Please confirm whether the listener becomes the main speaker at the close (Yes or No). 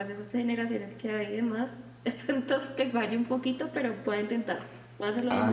Yes